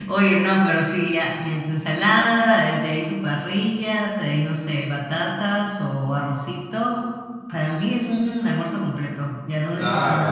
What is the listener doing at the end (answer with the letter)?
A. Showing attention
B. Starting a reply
B